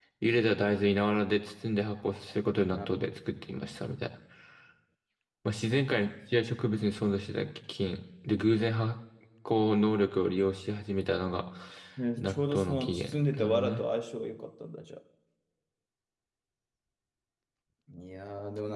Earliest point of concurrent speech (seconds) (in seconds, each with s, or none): 12.2 s